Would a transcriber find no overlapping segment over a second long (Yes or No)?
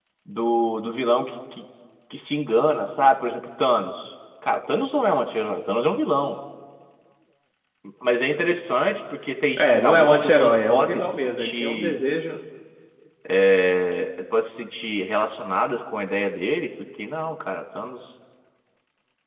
No